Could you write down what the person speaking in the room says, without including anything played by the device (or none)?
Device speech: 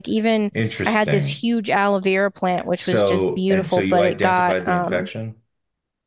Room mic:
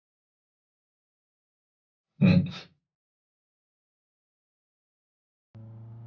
hmm.